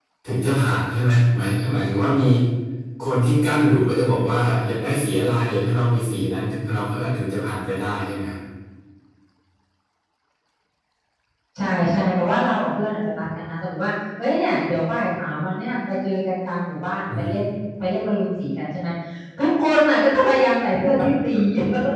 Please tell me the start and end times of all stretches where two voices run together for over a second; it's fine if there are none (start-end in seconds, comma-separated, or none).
none